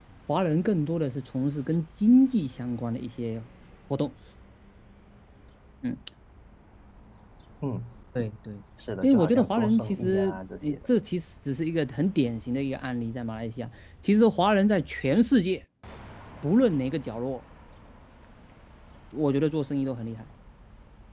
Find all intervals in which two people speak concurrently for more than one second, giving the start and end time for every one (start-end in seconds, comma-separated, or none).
9.0-10.8